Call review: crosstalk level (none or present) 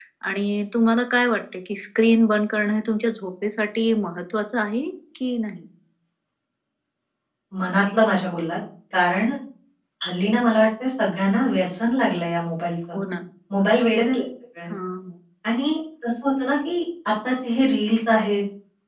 none